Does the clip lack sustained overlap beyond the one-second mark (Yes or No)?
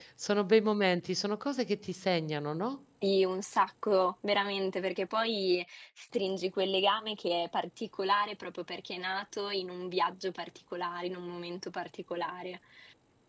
Yes